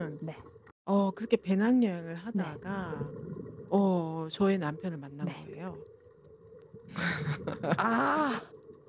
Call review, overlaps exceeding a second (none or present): none